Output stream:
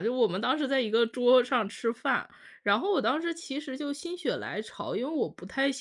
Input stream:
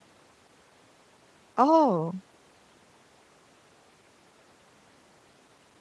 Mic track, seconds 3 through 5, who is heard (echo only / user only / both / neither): neither